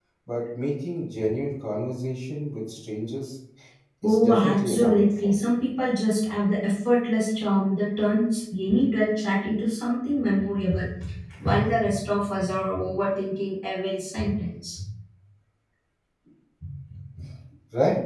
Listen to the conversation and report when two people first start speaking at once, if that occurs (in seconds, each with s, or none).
4.0 s